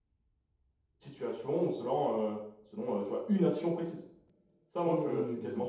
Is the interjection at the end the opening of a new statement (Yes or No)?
Yes